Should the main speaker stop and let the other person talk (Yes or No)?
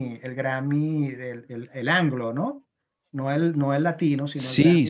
Yes